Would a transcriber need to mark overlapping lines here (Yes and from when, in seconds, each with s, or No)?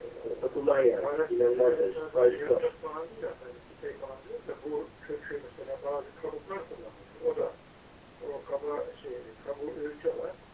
Yes, from 0.8 s